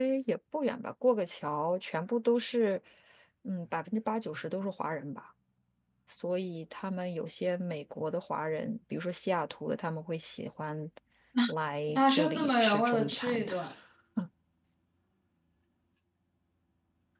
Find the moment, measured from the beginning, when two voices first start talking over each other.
11.9 s

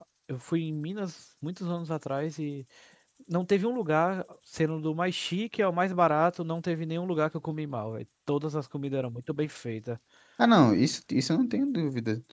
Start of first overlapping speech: none

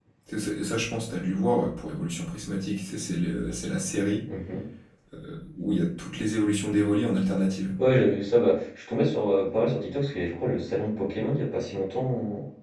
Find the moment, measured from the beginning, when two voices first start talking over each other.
none

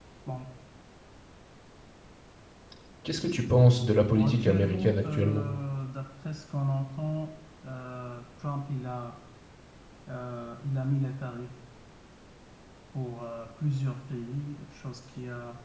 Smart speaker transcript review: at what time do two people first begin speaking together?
4.1 s

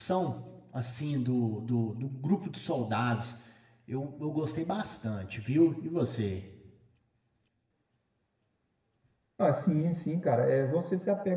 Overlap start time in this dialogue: none

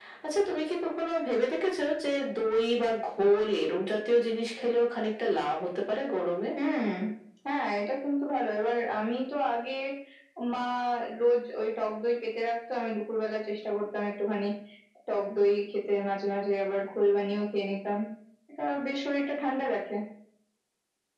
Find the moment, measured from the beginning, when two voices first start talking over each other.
none

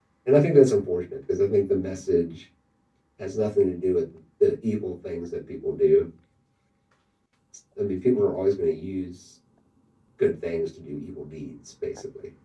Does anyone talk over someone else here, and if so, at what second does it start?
none

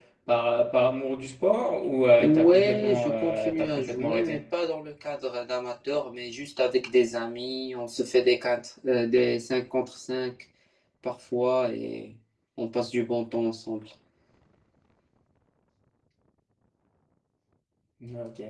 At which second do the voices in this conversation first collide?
2.2 s

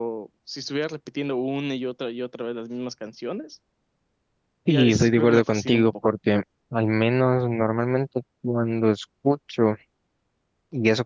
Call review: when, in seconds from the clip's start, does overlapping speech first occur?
4.7 s

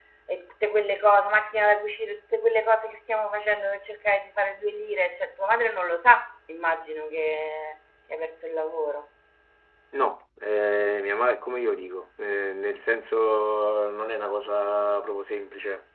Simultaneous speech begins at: none

